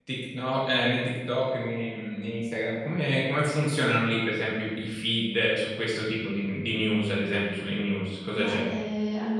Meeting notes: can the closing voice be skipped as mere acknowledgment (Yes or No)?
No